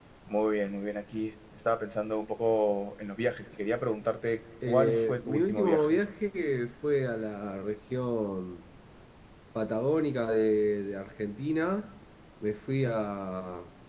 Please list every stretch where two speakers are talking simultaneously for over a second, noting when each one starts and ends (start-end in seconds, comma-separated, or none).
4.7-6.0